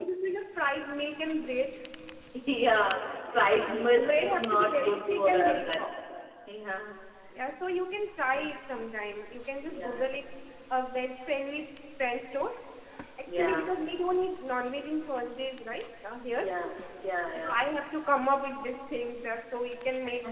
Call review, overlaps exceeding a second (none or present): present